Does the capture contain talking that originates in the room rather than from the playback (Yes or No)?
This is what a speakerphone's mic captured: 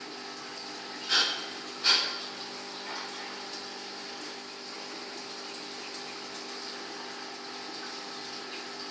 No